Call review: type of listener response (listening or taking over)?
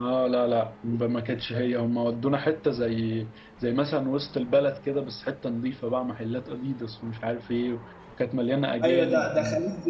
taking over